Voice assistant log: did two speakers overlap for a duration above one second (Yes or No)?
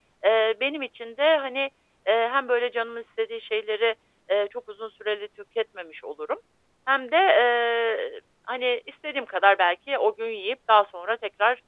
No